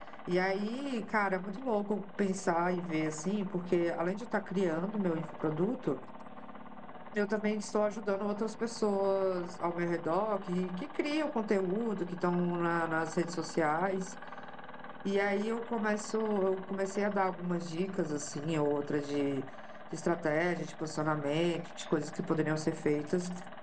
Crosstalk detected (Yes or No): No